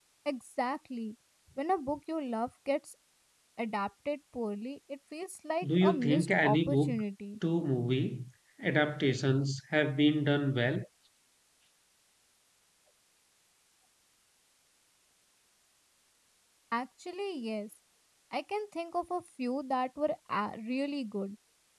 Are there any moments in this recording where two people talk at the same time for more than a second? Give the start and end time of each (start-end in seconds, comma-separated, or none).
5.7-6.9